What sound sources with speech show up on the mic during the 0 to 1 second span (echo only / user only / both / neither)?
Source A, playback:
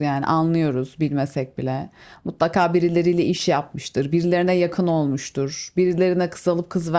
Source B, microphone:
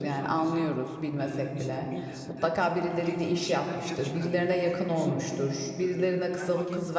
both